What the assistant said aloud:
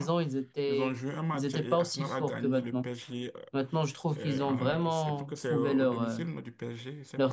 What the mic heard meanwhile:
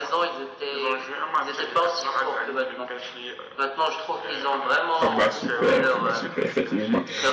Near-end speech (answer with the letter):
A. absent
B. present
B